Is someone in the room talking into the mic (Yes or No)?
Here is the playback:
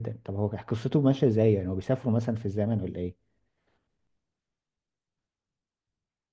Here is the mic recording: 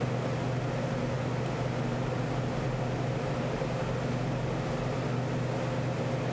No